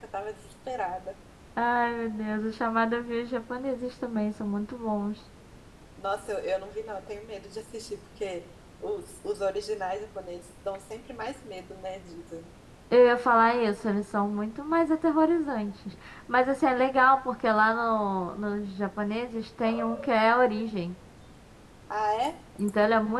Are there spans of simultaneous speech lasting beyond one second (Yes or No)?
No